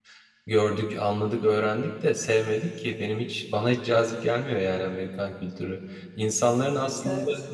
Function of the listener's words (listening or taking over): listening